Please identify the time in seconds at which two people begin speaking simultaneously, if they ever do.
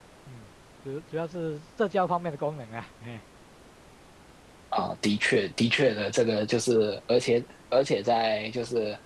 none

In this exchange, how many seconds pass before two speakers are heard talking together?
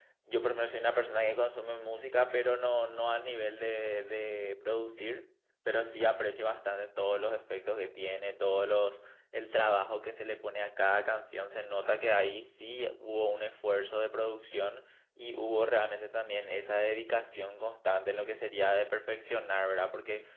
none

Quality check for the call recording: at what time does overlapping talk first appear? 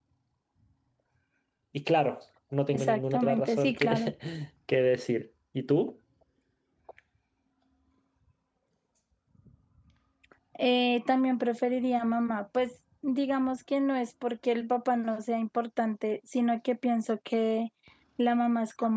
2.7 s

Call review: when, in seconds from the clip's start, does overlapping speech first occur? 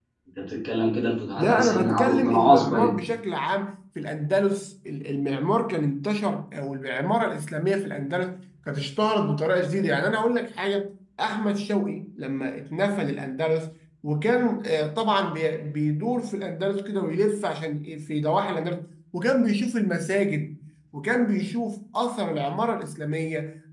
1.4 s

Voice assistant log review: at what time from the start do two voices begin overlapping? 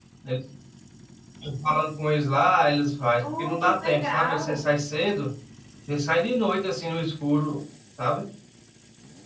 3.2 s

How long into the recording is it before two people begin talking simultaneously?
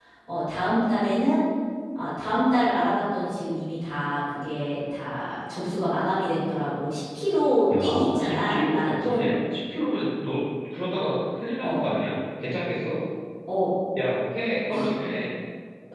7.8 s

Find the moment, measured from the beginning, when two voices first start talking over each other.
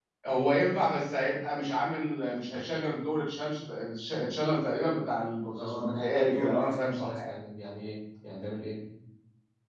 5.6 s

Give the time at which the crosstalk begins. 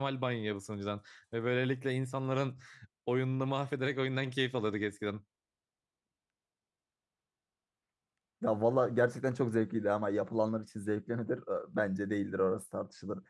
none

